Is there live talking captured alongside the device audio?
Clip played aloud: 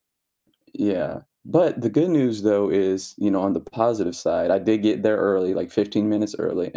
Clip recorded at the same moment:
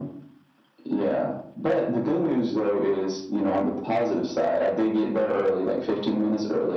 No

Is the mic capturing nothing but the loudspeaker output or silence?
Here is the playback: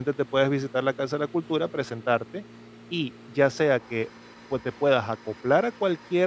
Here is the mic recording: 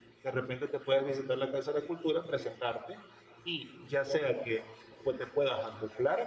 Yes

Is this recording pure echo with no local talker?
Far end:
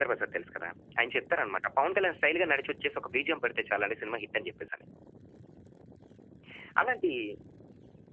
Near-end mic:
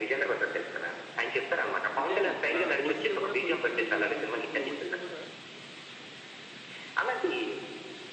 No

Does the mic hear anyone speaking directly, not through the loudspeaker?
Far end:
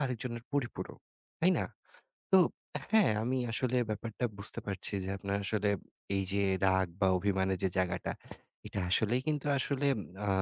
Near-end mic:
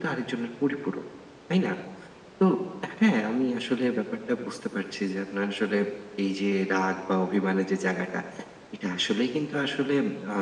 No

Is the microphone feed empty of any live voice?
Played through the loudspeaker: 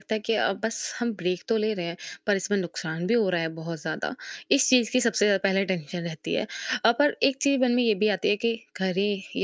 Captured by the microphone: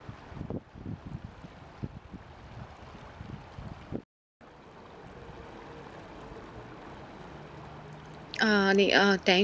No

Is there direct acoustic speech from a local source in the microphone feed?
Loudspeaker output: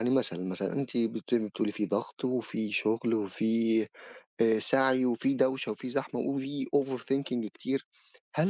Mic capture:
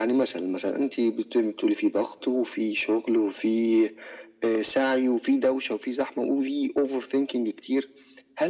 No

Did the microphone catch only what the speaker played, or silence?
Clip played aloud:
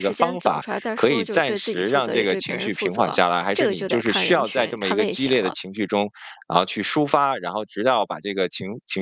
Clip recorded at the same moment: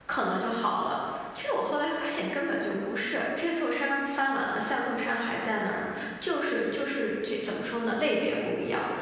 No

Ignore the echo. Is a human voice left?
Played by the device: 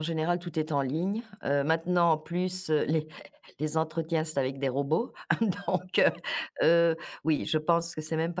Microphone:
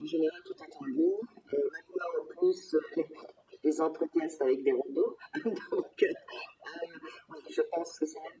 No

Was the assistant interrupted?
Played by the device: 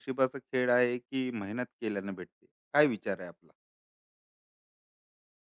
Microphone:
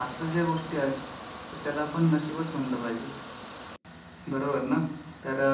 Yes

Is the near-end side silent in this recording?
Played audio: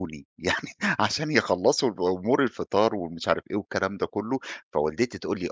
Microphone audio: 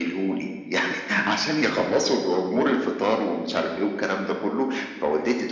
Yes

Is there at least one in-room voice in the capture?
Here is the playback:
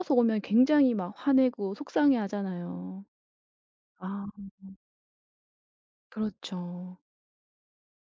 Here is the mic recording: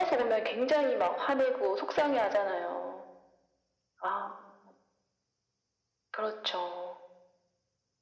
No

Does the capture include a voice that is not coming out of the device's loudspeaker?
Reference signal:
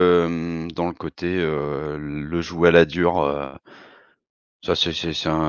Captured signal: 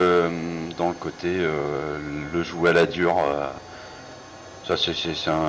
No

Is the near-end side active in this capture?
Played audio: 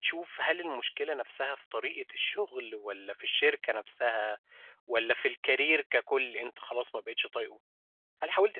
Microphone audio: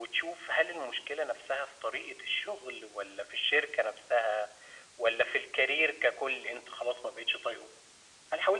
No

